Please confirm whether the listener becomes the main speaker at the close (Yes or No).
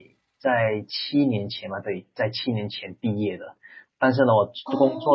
No